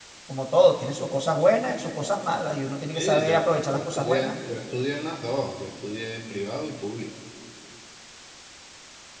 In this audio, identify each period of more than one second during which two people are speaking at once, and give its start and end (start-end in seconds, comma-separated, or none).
2.9-4.3